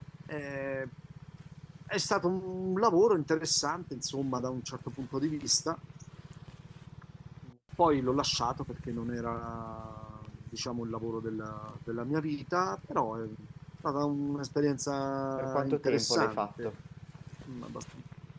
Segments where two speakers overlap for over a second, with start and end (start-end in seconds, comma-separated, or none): 15.4-16.7